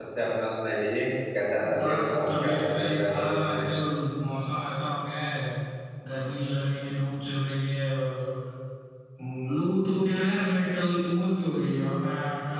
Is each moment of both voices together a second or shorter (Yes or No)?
No